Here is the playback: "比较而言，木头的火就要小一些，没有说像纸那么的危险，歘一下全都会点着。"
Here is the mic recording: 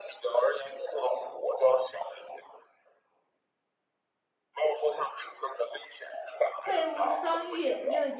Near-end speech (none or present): present